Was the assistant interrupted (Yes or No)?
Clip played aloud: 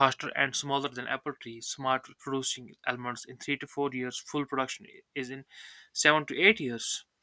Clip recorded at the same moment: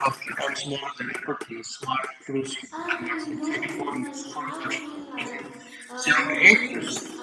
Yes